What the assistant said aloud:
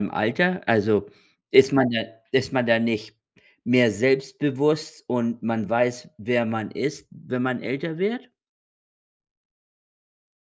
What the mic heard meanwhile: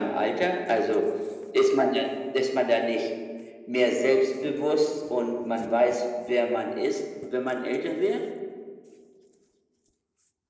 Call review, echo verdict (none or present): present